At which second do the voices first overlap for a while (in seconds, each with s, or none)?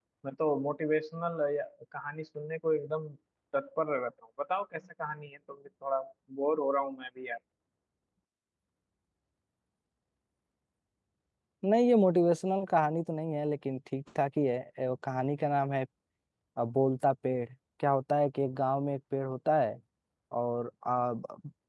none